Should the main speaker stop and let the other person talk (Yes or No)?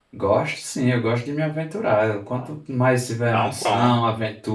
No